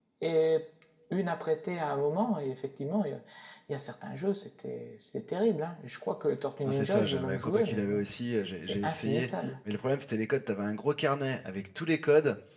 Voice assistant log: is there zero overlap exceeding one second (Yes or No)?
No